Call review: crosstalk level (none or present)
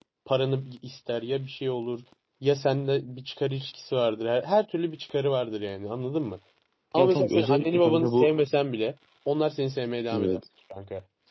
present